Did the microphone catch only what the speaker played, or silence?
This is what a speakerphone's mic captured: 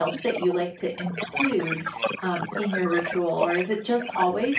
No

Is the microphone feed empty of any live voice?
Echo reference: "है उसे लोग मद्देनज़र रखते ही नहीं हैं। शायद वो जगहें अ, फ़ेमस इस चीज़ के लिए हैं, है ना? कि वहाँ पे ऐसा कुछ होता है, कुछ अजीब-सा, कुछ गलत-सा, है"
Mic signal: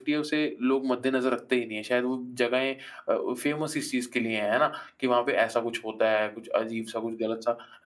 Yes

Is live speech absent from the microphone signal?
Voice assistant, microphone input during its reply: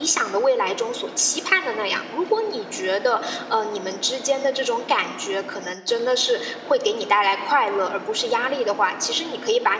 No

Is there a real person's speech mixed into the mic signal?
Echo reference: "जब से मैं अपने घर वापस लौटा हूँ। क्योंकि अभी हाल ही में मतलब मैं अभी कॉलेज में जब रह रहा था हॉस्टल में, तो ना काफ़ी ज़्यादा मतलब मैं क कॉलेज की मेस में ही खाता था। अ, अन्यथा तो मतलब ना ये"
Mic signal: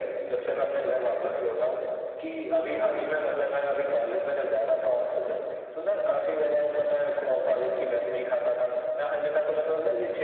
No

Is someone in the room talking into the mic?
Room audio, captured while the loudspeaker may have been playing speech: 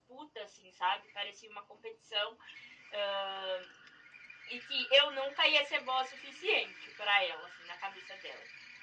No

